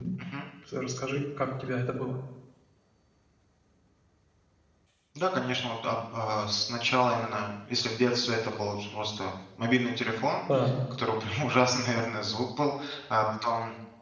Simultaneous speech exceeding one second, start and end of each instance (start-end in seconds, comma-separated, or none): none